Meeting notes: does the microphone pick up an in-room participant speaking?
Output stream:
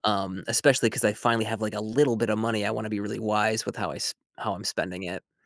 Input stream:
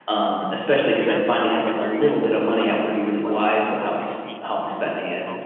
Yes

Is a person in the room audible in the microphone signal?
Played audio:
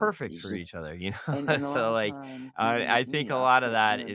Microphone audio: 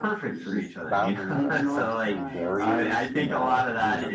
Yes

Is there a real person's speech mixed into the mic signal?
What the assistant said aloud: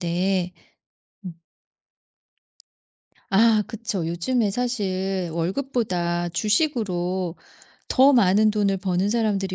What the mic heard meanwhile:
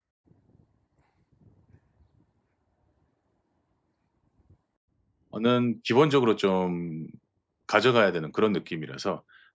Yes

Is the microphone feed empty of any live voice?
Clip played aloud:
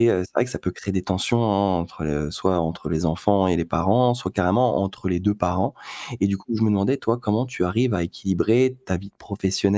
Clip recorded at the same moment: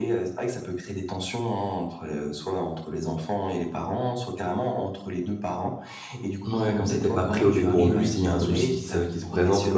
No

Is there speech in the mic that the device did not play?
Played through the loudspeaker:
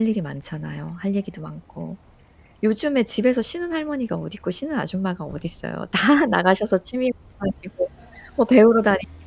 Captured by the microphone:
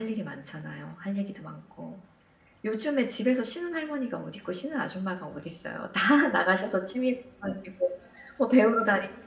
No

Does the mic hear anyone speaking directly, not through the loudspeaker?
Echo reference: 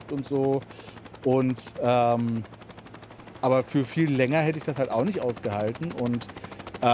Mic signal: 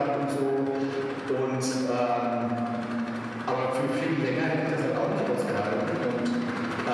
No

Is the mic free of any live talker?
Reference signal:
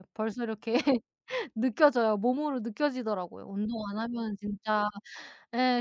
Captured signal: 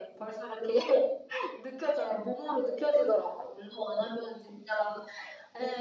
Yes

